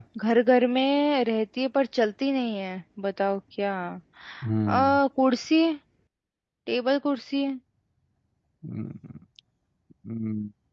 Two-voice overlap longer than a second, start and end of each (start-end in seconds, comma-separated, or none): none